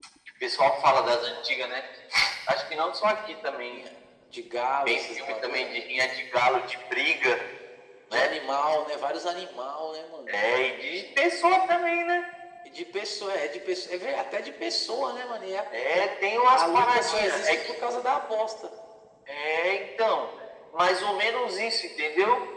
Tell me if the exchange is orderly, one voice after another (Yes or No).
No